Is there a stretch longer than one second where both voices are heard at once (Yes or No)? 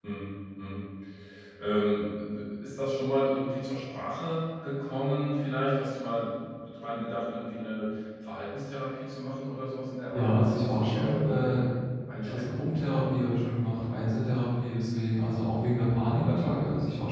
Yes